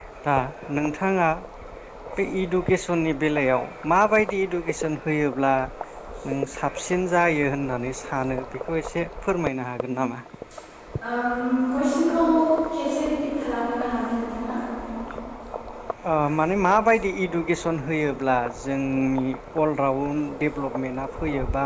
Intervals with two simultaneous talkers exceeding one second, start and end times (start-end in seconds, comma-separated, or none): none